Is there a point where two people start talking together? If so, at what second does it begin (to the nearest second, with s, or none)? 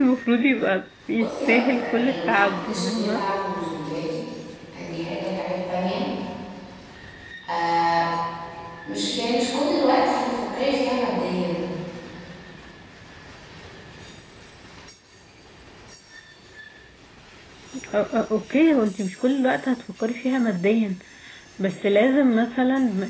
1 s